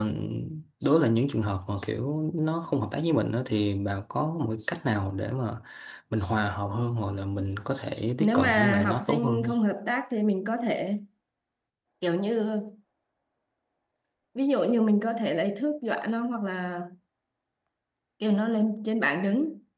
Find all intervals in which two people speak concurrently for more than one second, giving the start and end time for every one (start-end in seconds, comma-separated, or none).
8.2-9.5